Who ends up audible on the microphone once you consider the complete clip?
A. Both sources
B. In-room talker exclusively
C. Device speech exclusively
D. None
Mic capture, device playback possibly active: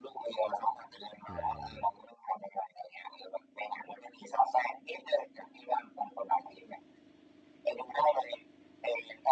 A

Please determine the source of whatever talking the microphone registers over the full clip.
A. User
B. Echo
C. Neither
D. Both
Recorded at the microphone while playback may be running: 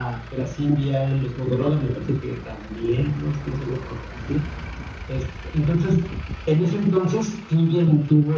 B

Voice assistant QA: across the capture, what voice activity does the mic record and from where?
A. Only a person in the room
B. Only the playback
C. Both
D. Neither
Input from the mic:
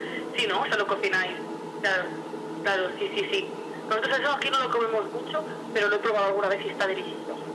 B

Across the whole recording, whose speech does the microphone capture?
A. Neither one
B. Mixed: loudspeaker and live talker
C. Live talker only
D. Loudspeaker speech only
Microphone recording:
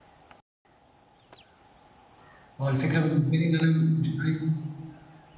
C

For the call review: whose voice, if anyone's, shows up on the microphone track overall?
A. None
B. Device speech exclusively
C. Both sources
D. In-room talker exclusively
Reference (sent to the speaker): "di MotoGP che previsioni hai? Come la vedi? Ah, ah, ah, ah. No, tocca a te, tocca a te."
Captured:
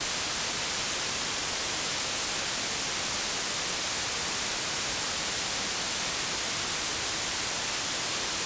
A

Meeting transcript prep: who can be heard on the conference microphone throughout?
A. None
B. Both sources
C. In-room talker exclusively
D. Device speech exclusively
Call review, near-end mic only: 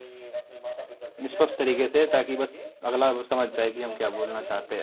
B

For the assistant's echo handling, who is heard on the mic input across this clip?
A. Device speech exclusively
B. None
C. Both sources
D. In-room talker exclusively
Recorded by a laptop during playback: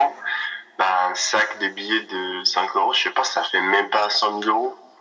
A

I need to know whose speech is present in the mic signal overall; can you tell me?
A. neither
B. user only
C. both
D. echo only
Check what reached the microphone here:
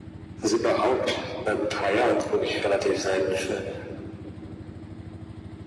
D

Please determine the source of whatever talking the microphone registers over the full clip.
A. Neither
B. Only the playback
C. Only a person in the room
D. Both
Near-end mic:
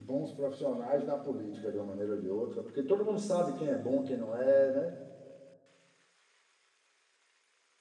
C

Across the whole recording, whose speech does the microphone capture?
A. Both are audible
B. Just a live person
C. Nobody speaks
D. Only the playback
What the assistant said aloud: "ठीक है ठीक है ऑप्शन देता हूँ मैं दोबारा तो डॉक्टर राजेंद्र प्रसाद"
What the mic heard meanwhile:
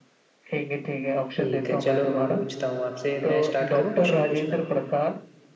A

